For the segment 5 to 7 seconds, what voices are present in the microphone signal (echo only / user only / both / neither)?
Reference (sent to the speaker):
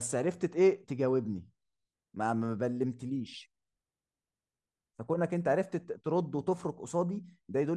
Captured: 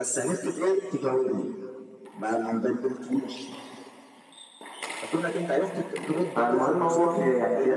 both